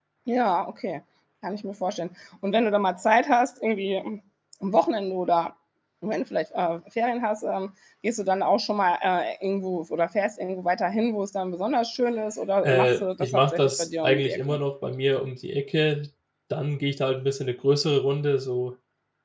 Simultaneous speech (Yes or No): Yes